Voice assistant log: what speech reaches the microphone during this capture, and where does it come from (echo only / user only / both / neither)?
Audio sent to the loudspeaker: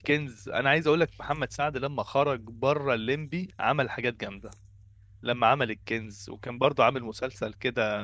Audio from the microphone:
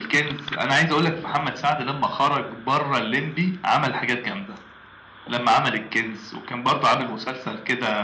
echo only